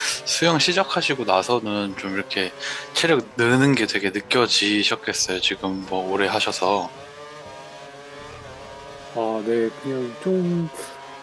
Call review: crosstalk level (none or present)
none